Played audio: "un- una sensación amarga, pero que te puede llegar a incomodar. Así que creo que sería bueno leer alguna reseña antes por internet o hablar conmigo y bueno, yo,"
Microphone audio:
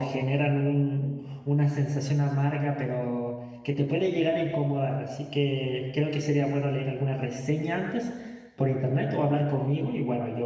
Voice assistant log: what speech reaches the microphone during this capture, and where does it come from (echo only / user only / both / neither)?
echo only